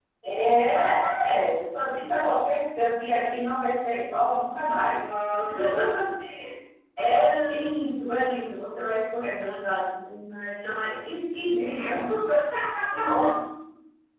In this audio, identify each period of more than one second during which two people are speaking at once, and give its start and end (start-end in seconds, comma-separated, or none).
none